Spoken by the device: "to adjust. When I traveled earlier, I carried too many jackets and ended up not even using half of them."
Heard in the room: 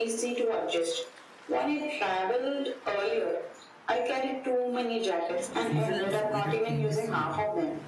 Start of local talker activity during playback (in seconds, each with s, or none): 5.6 s